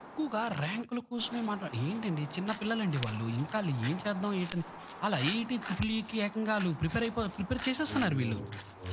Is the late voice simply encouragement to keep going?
No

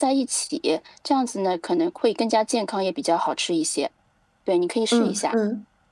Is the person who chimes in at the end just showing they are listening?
No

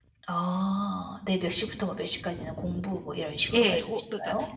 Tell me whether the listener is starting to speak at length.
Yes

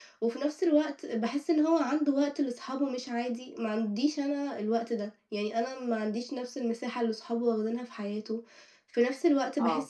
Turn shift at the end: No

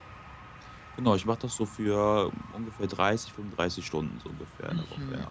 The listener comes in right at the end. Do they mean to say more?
Yes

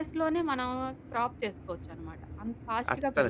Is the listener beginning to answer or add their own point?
Yes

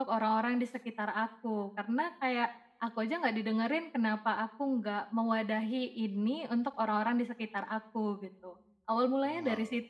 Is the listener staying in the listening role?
No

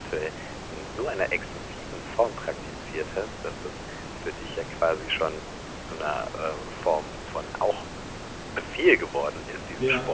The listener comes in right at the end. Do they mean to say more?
No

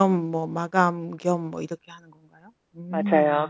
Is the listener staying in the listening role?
No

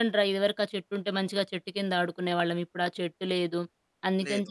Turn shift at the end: No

